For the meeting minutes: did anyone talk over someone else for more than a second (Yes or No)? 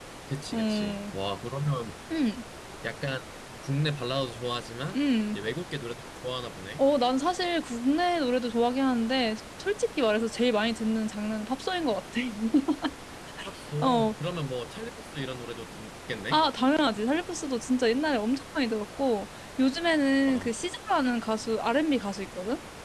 No